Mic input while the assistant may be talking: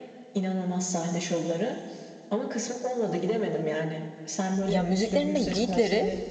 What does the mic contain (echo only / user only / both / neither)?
both